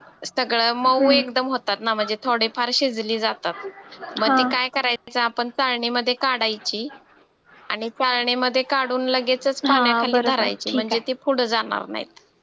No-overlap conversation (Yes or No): No